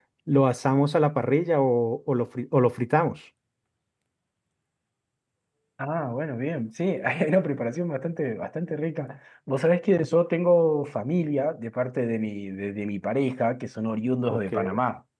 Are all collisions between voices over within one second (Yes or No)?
Yes